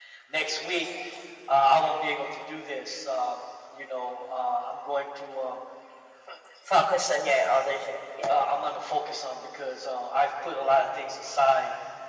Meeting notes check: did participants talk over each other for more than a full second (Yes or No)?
No